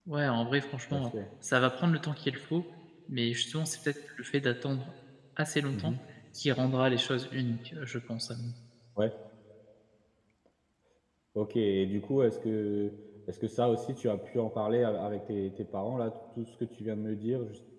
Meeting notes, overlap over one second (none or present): none